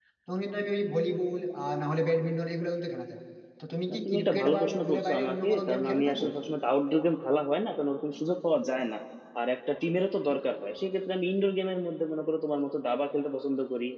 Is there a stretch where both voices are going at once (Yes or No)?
Yes